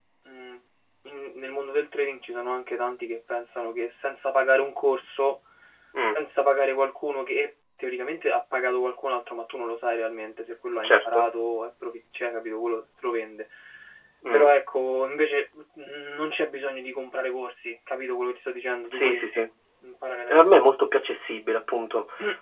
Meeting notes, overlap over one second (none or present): none